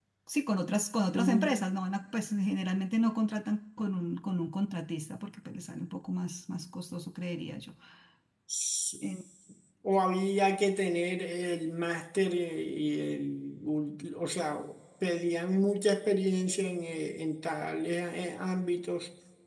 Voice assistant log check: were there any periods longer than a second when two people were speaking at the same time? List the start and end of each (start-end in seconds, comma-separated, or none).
none